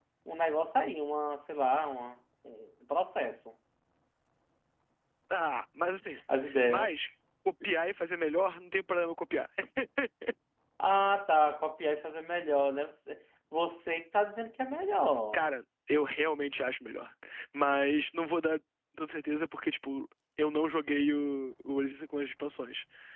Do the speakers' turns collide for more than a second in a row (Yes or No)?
No